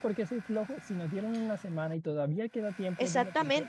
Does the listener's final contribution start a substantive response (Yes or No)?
Yes